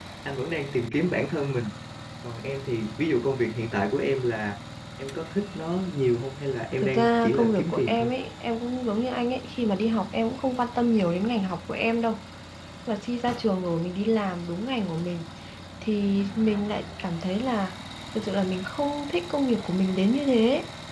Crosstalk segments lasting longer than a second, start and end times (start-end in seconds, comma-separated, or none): 6.8-8.1